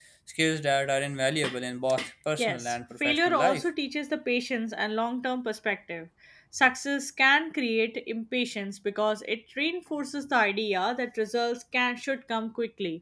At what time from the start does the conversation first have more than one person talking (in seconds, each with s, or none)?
2.4 s